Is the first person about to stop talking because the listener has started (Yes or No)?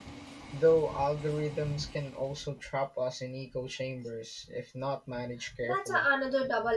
Yes